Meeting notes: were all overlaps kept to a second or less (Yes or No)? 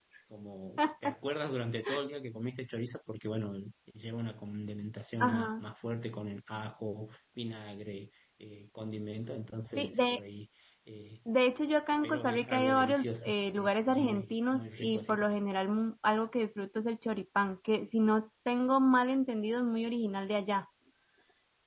No